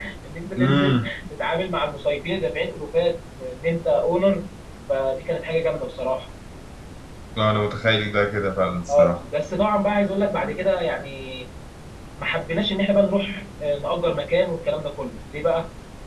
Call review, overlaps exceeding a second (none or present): none